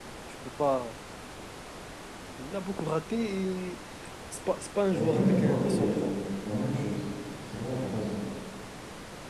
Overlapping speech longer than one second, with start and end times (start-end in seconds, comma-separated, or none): 4.9-6.1